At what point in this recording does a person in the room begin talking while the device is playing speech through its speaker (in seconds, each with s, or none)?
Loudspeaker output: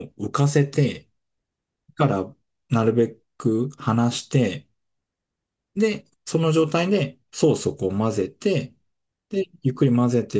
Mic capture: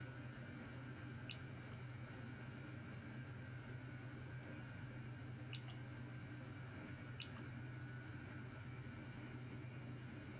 none